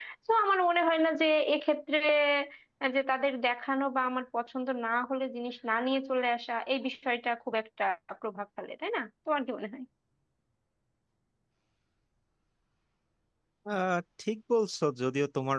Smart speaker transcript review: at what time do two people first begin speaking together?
none

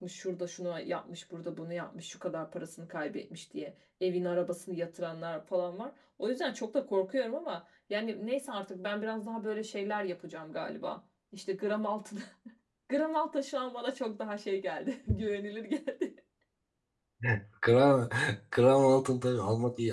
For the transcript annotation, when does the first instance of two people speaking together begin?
none

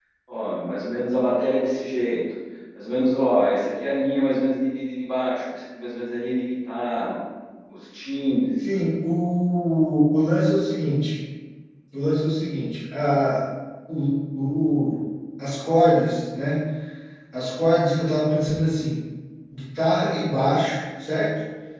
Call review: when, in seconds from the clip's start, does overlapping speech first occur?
none

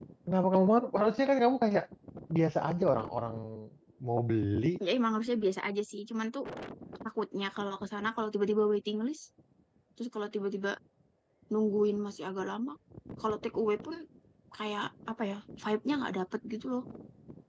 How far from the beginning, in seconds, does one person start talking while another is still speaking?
none

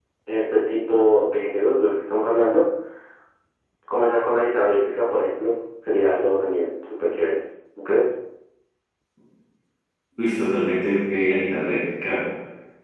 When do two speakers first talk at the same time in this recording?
none

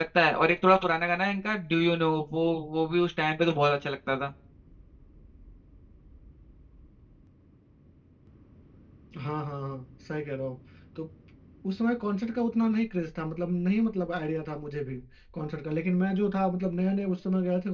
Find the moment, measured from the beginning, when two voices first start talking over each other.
none

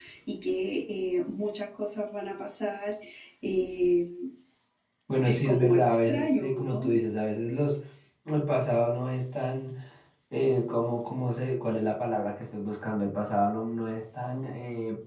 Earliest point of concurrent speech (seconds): 5.2 s

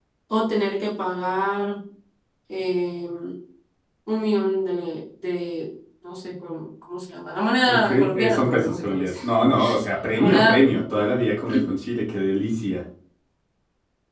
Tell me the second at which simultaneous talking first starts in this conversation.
7.7 s

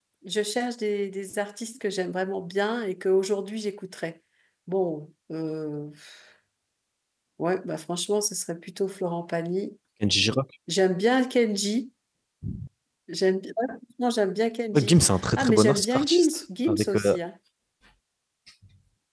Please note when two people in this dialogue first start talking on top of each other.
14.7 s

